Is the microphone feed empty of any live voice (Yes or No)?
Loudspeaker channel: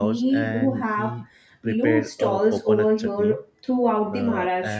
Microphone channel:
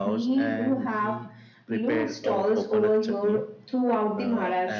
Yes